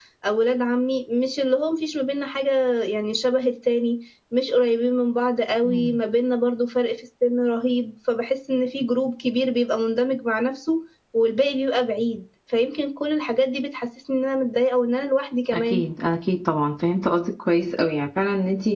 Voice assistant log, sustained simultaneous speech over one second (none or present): none